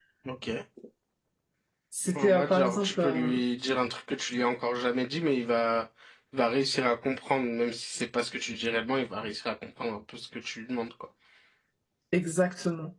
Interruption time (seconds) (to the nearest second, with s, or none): 2 s